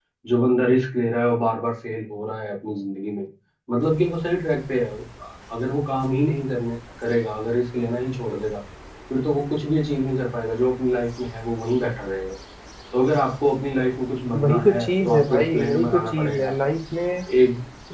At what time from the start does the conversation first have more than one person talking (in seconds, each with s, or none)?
14.3 s